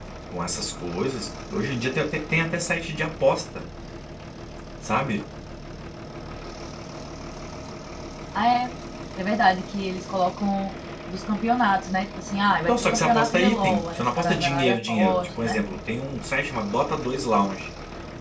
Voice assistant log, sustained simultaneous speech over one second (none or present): present